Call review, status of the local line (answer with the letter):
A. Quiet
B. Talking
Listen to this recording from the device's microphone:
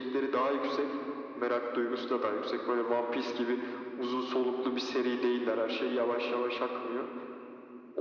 A